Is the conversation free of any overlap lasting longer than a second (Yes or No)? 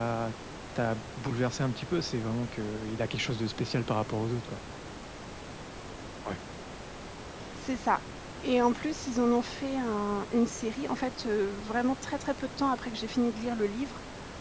Yes